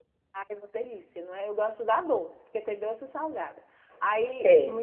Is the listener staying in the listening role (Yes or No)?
Yes